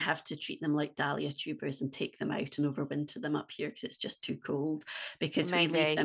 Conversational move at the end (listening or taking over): listening